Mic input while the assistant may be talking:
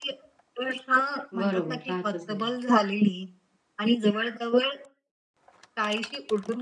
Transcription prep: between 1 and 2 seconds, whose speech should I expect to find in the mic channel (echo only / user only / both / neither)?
both